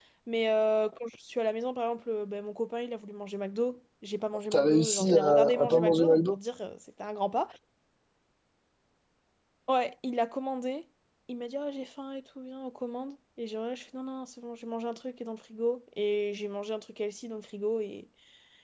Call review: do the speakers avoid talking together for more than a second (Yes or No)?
No